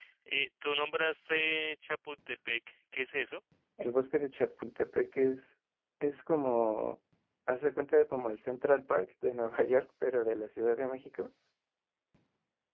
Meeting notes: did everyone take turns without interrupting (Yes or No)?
Yes